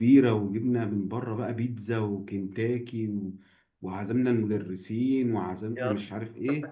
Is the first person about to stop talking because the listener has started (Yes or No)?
No